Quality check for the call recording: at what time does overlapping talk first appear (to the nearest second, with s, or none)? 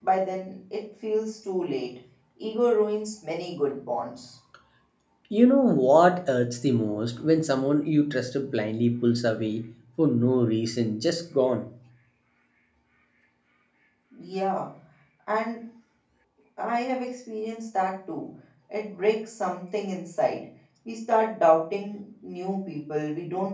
none